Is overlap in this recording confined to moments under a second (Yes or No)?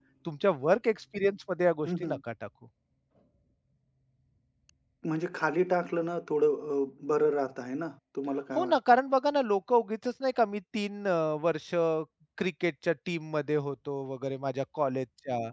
Yes